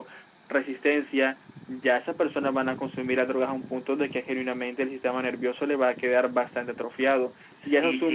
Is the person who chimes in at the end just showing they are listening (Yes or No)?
No